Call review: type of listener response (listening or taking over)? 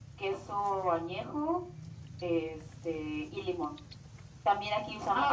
taking over